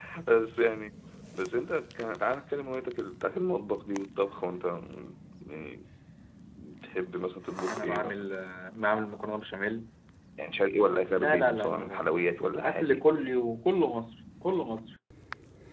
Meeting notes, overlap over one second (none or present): present